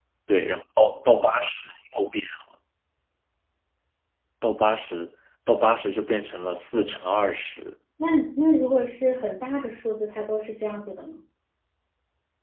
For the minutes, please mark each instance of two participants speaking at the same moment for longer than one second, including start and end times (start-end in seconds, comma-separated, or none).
none